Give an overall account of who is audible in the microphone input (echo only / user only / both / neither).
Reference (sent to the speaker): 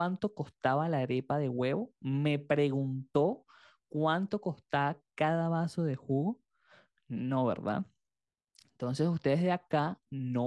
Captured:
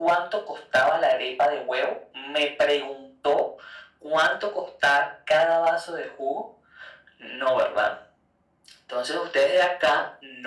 echo only